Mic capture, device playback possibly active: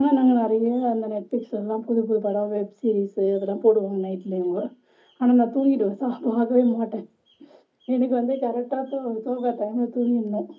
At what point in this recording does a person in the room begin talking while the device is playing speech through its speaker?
none

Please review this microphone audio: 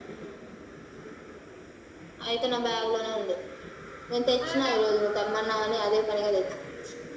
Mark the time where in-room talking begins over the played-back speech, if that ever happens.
4 s

